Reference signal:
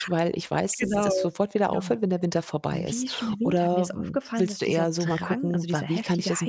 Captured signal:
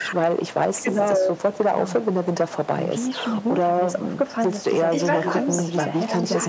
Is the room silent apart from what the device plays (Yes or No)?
No